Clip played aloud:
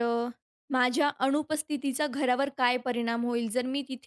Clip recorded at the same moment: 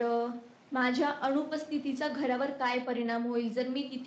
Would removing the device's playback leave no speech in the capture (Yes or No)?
Yes